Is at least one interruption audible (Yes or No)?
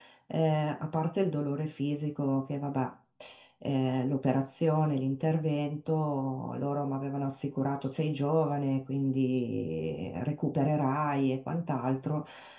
No